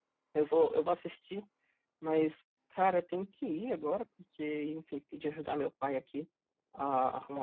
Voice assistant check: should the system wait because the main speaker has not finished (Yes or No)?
Yes